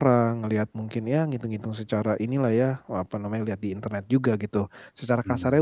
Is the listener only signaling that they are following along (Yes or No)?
Yes